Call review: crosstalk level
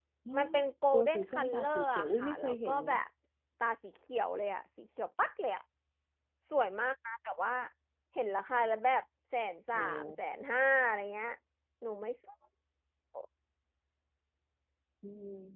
present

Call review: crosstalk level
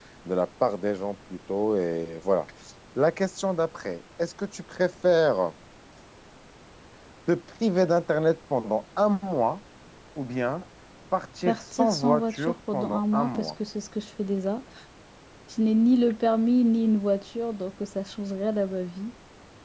present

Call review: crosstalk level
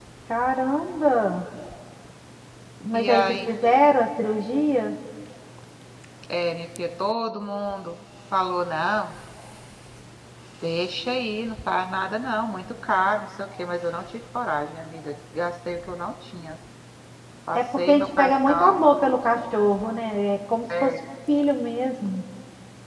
present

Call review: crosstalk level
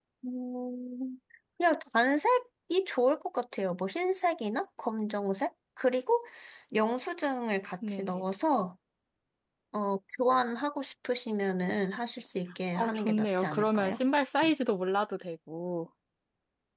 present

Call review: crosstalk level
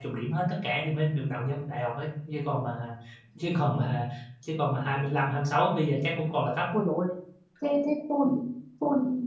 none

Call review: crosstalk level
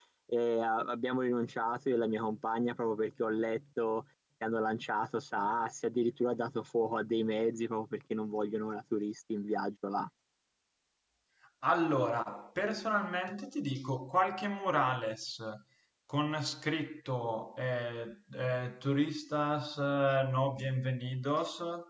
none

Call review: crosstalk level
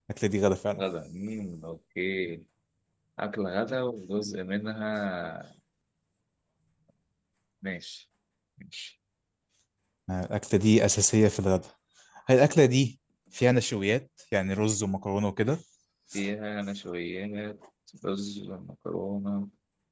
none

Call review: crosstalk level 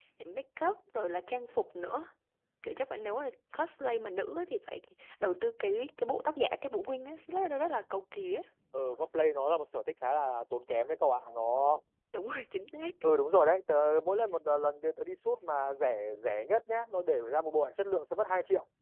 none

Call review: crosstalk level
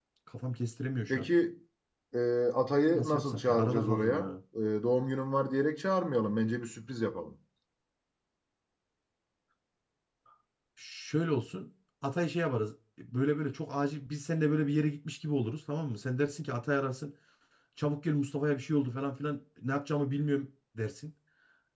present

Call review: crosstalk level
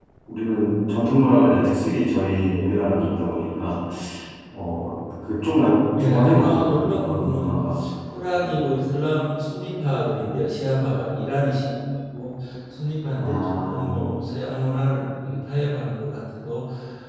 present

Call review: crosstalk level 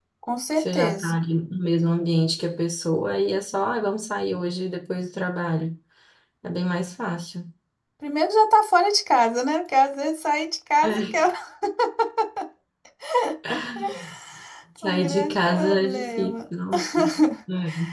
present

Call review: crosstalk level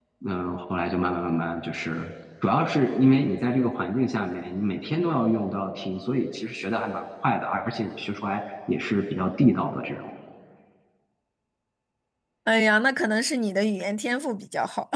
none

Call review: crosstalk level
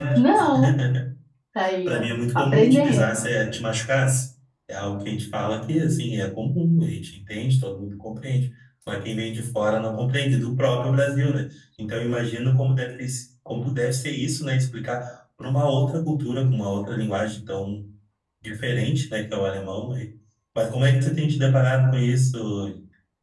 present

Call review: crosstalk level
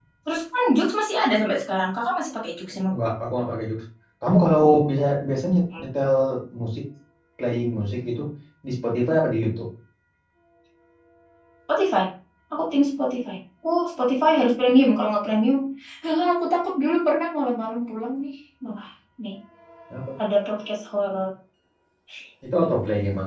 none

